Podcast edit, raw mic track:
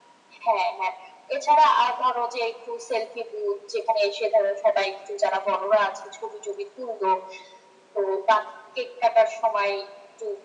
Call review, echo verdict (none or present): present